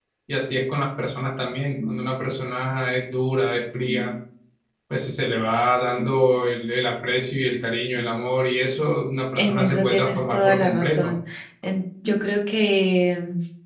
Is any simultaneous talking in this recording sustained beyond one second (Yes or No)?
Yes